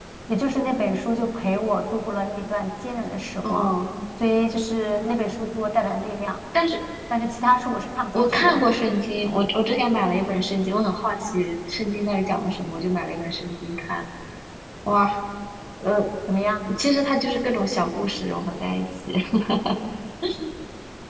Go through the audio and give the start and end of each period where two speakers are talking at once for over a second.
none

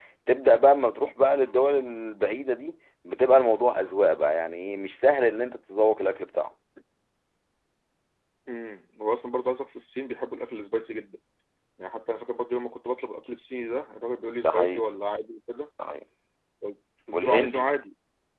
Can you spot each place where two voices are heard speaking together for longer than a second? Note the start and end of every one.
none

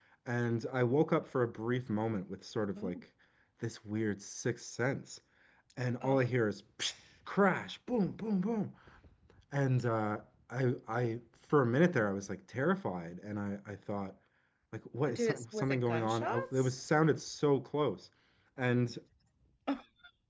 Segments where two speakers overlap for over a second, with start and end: 15.1-16.8

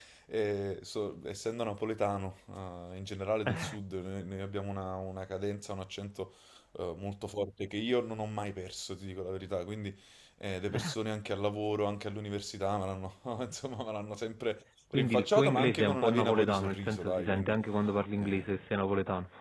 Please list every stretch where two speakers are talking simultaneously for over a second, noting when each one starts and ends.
14.9-17.6

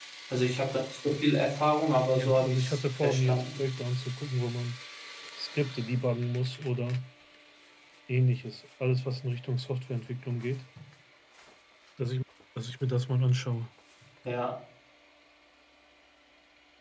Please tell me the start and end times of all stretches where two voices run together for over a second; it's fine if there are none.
2.2-3.6

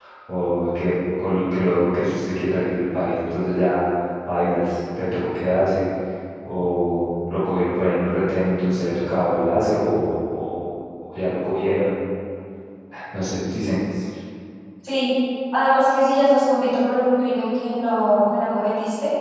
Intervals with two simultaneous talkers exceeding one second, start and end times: none

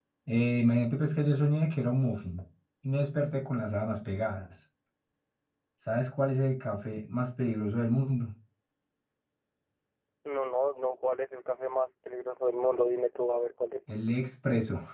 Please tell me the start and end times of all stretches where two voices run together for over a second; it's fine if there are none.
none

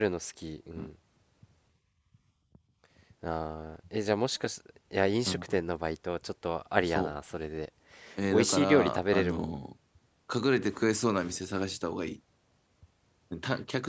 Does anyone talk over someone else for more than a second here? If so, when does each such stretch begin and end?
8.3-9.5

